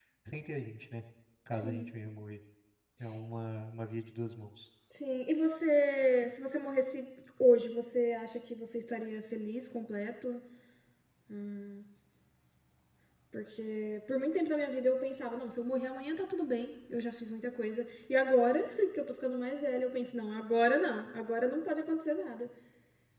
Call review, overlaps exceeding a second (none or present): none